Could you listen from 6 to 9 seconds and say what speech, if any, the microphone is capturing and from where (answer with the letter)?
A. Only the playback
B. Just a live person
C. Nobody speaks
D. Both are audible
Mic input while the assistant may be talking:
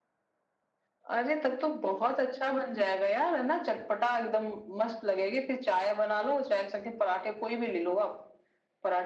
A